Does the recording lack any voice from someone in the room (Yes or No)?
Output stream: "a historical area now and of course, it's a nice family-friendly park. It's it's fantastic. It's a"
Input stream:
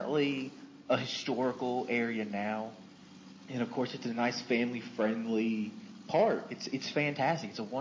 Yes